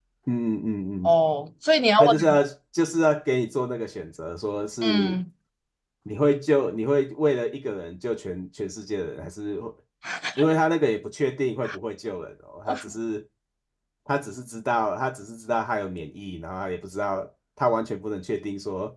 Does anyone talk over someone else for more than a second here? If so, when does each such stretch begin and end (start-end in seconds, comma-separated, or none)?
none